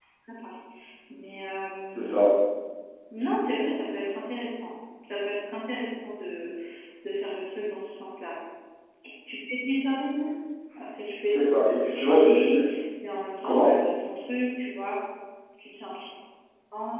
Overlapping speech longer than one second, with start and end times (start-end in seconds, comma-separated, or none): 11.3-12.6